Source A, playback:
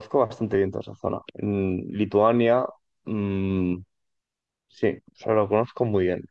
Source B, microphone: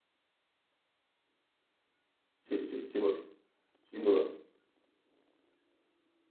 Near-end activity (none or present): present